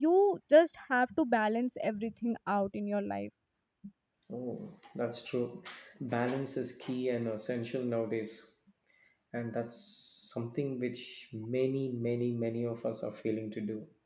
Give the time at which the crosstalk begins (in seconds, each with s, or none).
none